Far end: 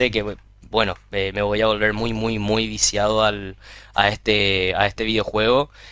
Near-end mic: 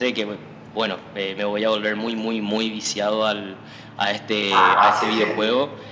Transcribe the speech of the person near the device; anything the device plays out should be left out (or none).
Ah, sí, sí.